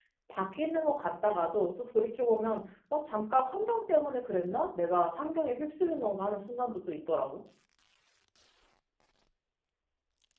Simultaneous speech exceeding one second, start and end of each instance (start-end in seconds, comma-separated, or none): none